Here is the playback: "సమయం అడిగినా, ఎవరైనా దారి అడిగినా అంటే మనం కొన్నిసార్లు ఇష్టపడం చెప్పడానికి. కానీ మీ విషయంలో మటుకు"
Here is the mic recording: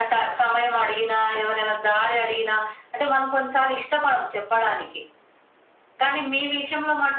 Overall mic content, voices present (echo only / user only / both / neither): echo only